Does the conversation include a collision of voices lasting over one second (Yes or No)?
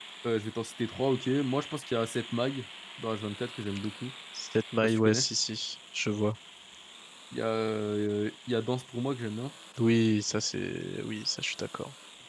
No